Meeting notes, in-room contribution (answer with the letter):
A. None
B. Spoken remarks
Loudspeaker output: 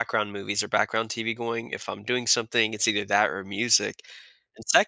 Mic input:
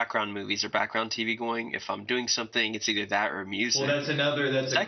B